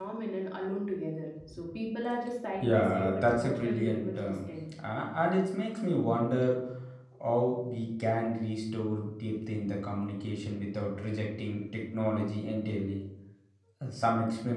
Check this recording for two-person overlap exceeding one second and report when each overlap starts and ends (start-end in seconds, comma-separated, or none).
2.6-4.5